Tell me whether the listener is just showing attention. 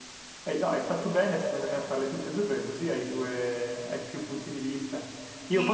Yes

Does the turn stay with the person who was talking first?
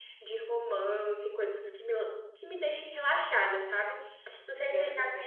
Yes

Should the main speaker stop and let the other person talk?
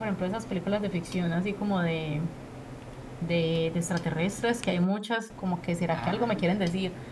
No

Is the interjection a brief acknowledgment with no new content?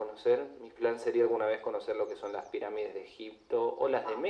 Yes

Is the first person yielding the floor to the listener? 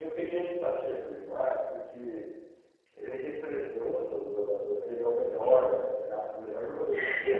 No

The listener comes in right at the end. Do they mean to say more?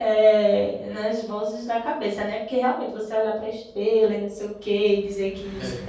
No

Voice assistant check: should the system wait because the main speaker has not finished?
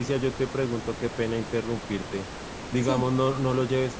Yes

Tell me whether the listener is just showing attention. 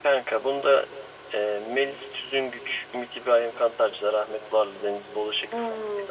No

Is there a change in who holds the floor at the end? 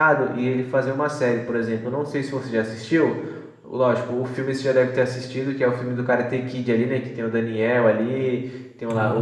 No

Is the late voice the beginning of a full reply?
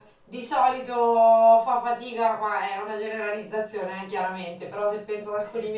No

